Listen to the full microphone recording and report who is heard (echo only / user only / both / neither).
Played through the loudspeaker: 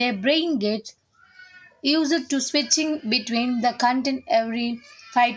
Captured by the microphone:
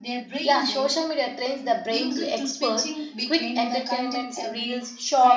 both